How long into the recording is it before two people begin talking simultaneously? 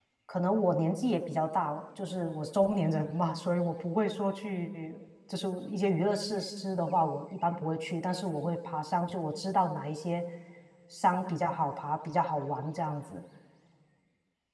none

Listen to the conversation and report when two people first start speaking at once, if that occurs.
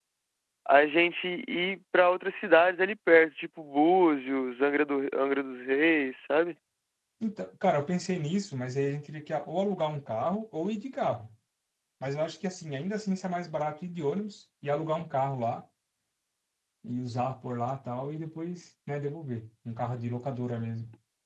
none

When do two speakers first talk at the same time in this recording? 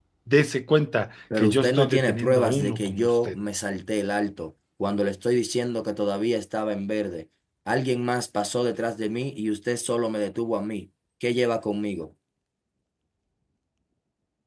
1.3 s

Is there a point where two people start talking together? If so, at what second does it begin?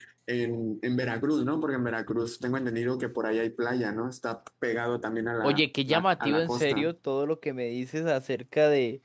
5.4 s

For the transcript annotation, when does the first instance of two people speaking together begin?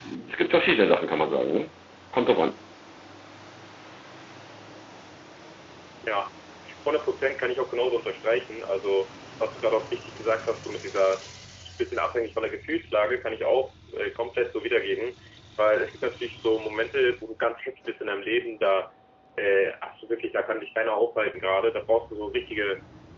none

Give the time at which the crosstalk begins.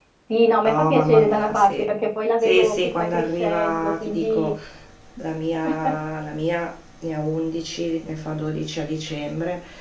0.6 s

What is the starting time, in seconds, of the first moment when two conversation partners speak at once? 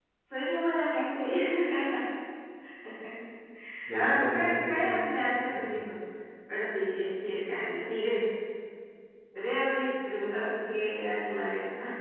3.9 s

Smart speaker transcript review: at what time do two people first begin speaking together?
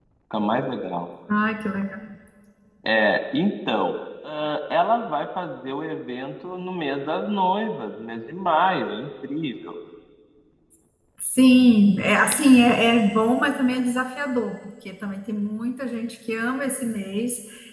none

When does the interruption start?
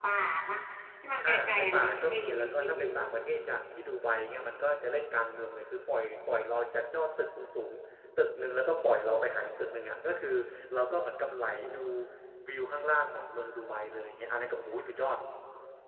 1.2 s

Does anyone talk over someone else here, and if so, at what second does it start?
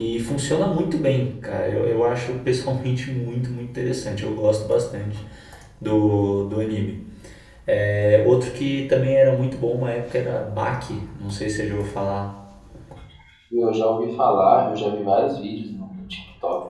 none

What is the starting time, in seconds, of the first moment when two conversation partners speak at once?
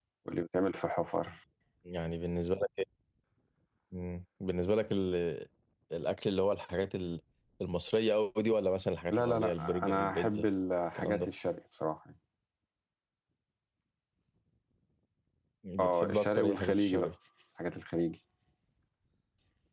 9.1 s

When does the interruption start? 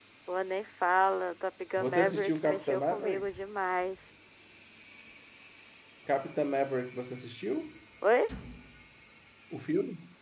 1.8 s

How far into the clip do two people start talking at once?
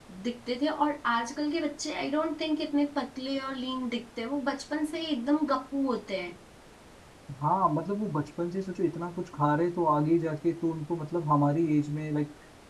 none

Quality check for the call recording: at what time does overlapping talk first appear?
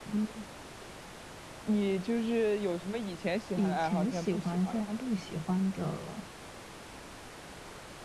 3.6 s

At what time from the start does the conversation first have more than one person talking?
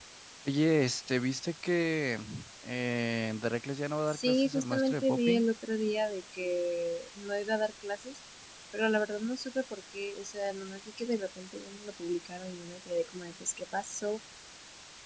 4.1 s

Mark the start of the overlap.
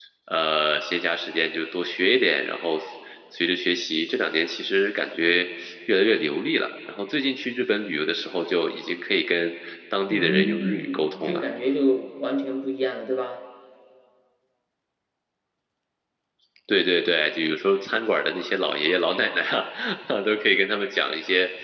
10.1 s

